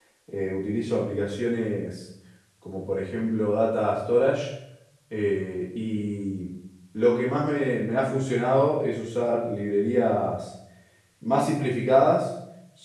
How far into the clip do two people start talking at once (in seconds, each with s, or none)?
none